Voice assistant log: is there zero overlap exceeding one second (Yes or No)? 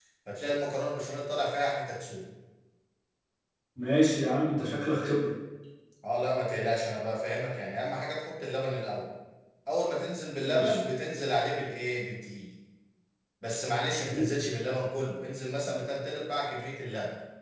Yes